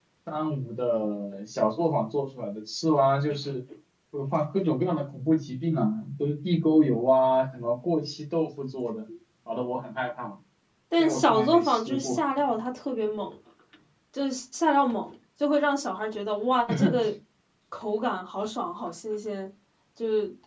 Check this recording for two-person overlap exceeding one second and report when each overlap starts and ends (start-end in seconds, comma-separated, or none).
11.0-12.2